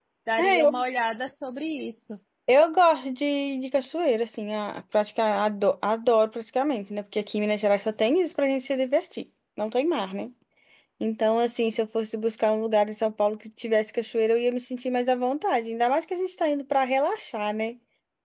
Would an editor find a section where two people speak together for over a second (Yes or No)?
No